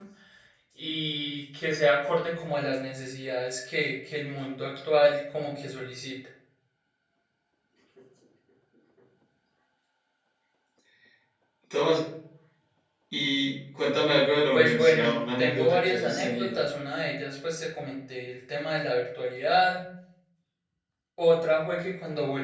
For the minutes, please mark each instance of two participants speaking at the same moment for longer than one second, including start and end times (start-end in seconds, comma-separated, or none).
14.5-16.5